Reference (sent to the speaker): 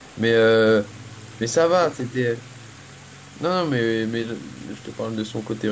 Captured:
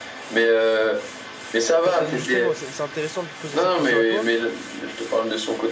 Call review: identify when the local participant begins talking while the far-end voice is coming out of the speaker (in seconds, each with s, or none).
1.8 s